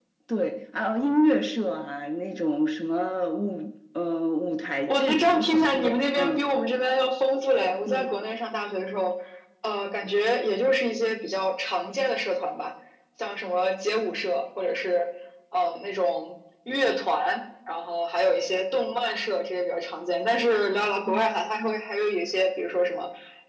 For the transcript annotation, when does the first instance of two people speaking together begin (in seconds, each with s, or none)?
4.9 s